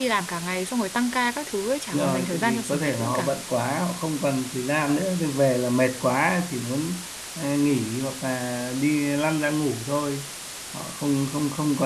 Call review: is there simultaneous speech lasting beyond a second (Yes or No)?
Yes